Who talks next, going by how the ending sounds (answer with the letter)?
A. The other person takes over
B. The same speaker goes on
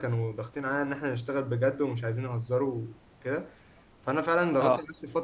B